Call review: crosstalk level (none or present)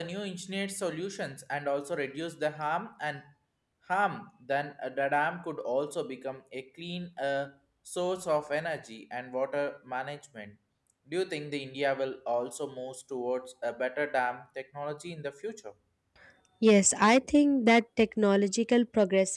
none